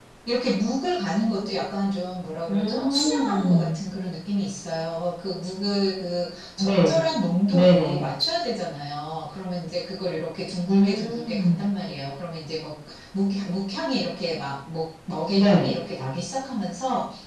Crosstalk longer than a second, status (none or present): present